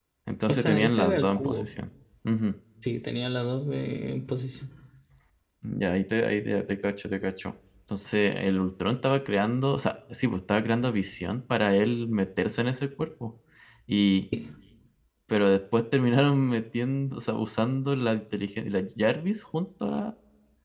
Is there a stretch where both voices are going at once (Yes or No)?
Yes